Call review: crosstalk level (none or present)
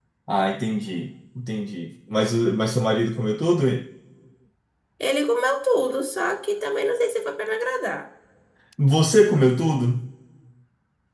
none